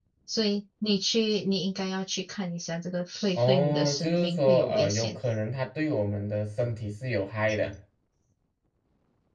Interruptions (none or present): present